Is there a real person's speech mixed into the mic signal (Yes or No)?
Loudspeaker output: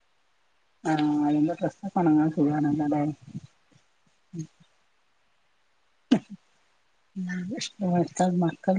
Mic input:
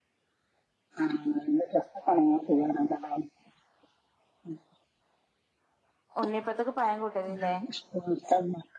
Yes